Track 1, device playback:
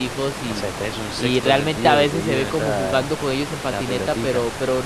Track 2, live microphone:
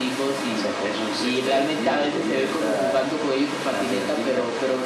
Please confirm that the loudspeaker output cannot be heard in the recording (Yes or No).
No